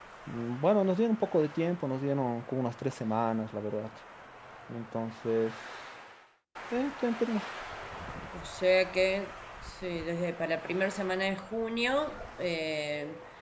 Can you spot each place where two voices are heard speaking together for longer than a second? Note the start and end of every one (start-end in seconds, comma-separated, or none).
none